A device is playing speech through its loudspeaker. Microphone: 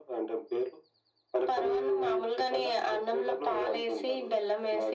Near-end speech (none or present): none